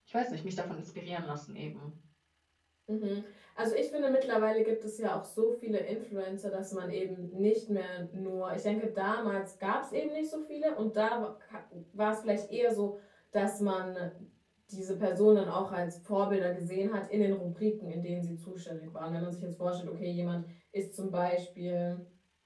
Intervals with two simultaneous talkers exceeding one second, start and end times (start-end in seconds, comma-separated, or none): none